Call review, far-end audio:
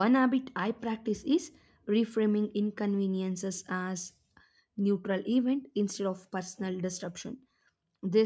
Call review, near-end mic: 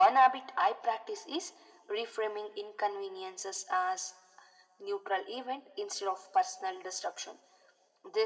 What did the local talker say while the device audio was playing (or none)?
none